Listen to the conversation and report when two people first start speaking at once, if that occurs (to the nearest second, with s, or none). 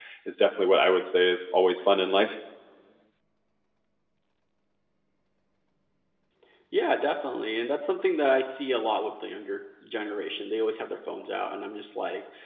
none